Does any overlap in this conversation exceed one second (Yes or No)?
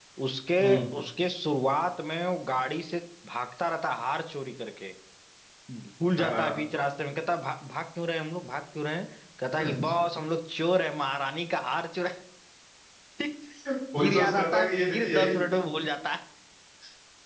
Yes